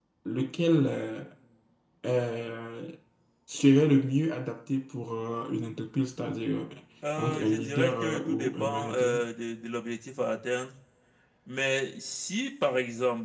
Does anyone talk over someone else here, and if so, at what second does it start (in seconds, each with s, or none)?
7.2 s